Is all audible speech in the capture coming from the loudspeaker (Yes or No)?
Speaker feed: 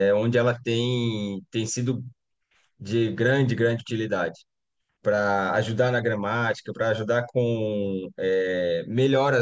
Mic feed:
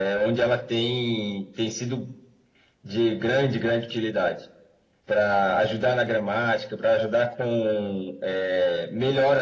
Yes